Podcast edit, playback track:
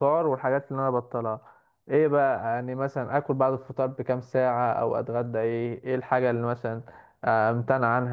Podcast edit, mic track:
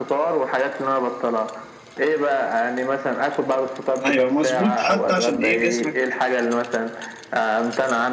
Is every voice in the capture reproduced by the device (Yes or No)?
No